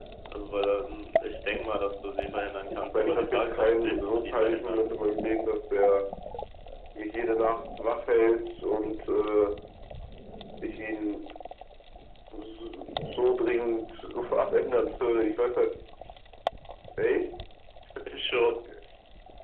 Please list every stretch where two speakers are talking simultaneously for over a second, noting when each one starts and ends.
2.7-4.8

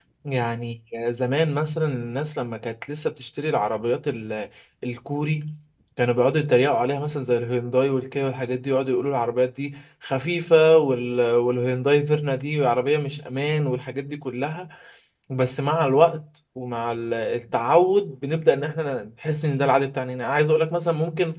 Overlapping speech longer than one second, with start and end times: none

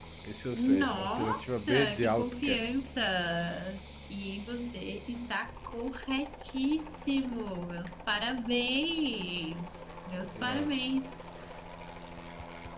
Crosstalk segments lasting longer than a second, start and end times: 0.5-2.9

